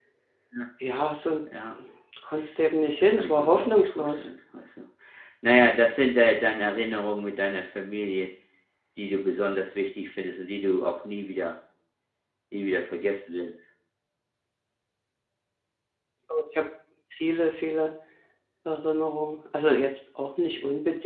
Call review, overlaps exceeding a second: present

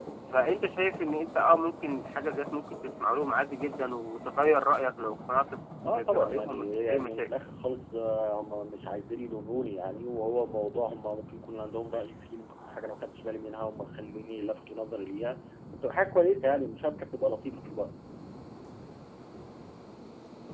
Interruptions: present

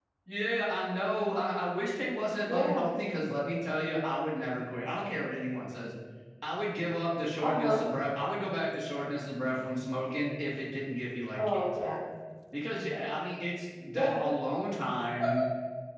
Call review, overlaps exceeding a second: none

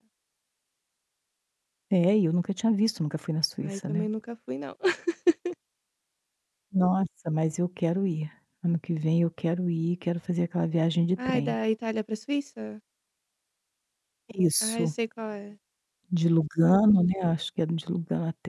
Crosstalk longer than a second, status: none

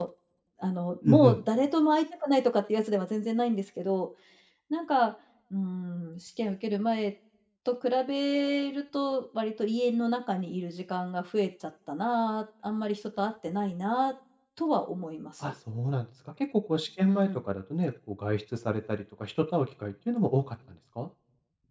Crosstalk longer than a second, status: none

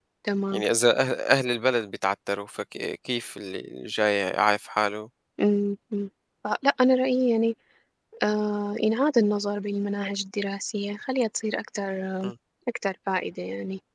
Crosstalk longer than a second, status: none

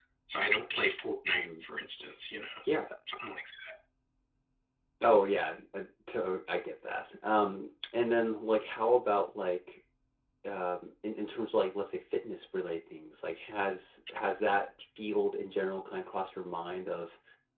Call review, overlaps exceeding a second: none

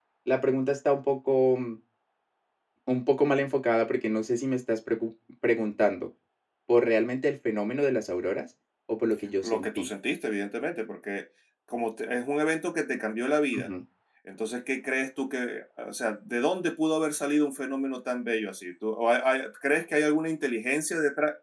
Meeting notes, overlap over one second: none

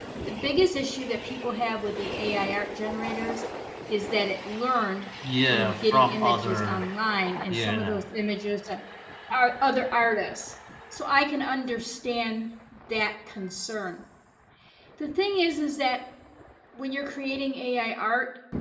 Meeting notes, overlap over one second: present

